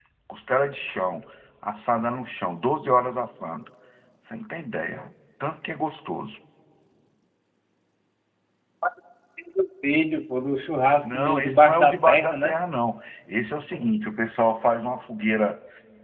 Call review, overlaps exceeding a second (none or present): present